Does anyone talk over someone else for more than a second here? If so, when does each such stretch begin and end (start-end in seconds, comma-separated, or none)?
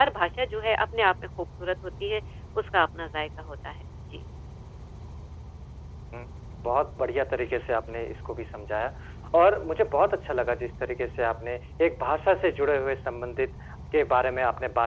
none